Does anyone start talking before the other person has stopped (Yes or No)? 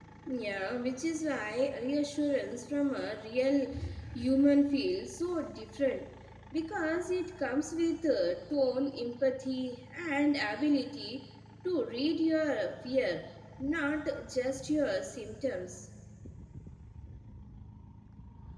No